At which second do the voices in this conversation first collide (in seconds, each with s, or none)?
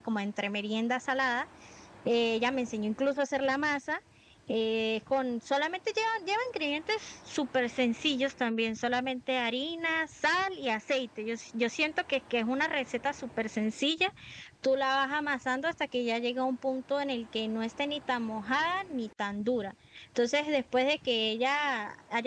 none